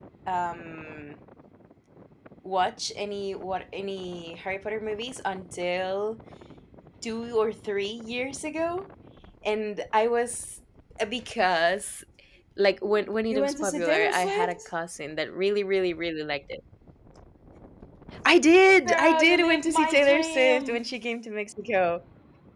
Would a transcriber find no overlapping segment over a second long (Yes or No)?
No